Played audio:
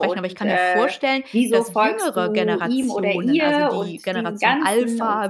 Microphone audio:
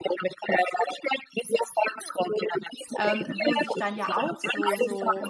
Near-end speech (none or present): present